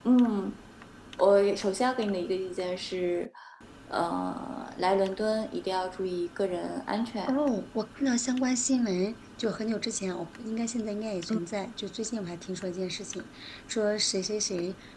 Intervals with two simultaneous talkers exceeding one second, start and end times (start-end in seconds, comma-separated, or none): none